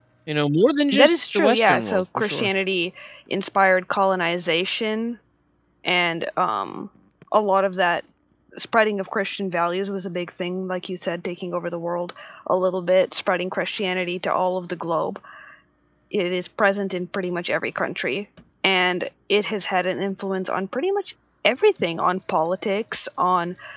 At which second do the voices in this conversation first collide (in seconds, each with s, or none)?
0.9 s